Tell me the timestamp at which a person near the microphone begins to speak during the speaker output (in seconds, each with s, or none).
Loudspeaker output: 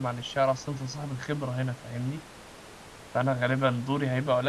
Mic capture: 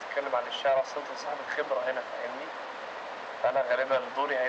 none